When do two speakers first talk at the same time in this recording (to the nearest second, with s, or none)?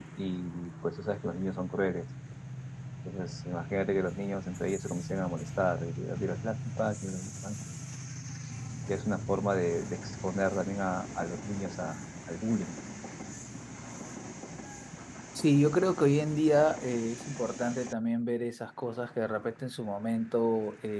none